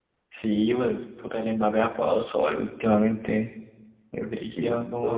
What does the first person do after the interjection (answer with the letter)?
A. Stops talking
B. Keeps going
A